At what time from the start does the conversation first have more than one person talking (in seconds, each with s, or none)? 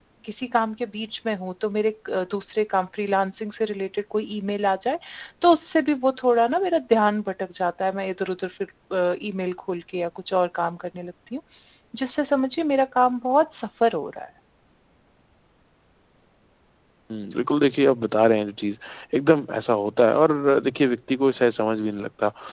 none